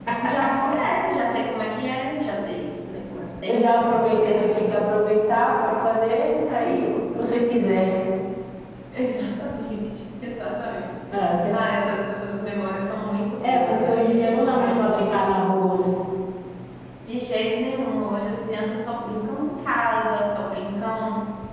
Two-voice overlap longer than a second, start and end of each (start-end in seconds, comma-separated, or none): 3.5-4.8, 13.4-15.3